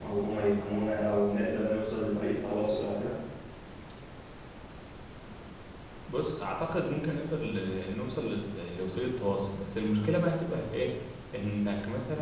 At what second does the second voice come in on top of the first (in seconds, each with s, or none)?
none